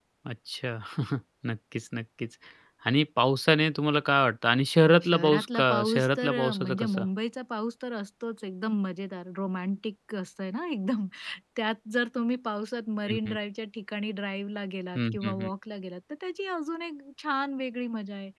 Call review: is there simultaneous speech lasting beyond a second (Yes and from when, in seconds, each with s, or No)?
Yes, from 5.0 s